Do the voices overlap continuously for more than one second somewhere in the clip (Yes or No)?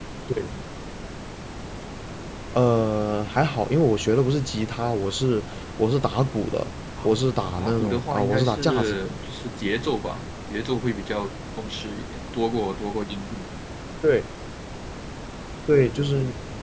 Yes